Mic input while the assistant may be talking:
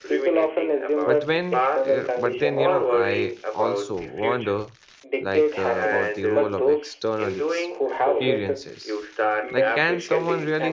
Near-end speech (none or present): present